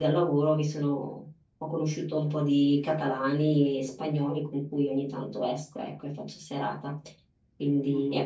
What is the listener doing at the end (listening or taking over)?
listening